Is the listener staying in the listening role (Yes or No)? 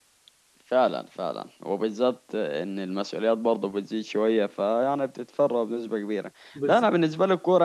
Yes